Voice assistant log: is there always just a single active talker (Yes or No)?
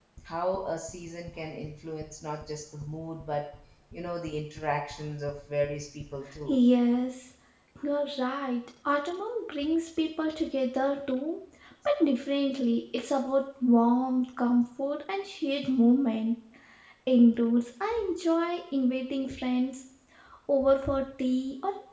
Yes